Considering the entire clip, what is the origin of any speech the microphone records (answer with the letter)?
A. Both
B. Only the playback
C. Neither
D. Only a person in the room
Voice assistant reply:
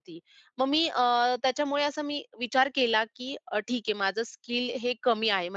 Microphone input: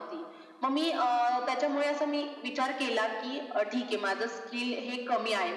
B